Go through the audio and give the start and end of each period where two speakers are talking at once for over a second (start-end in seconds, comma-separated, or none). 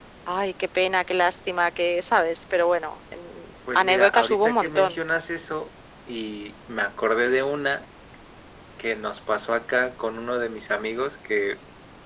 3.8-5.0